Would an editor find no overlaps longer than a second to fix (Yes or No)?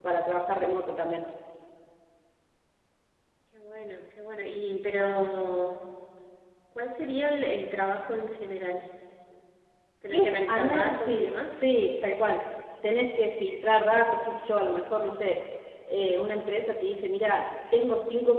No